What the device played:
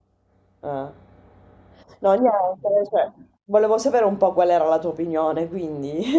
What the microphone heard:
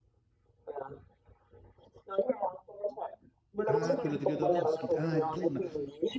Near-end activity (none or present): present